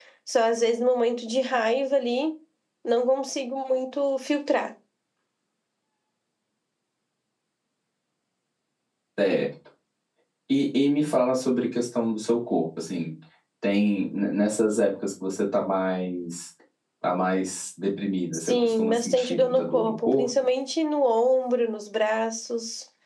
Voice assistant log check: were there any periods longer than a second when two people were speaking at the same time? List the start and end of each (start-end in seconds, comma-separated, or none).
18.5-20.3